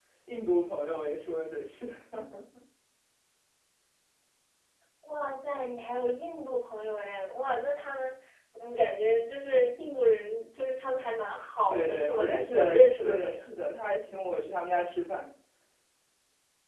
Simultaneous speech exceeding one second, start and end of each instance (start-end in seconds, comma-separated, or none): 11.7-13.3